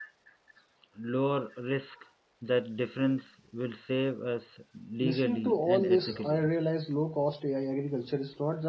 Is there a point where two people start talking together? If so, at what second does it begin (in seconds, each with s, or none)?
5.0 s